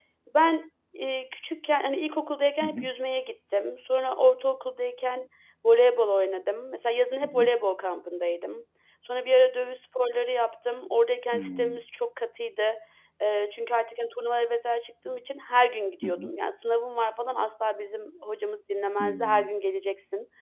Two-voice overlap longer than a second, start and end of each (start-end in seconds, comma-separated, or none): none